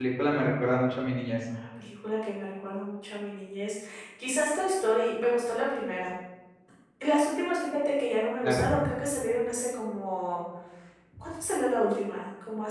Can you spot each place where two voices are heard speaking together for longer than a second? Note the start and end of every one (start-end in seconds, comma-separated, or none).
none